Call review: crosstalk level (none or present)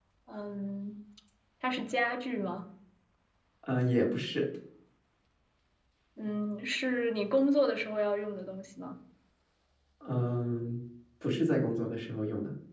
none